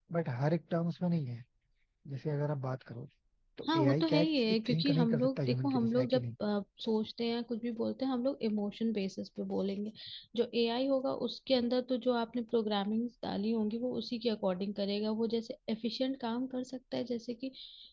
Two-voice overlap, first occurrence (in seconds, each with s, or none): 3.7 s